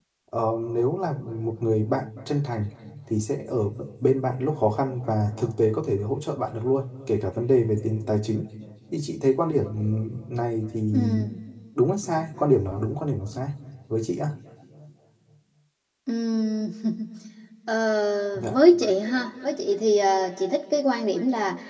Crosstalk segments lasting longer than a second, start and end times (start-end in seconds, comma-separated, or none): none